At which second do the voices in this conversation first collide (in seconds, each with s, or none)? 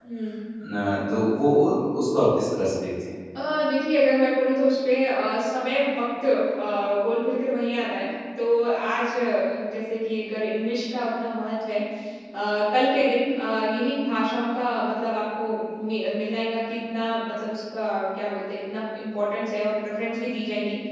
none